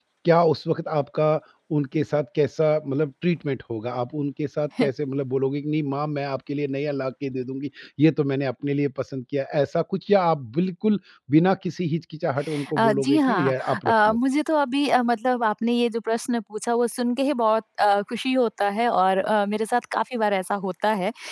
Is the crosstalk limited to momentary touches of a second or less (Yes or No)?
No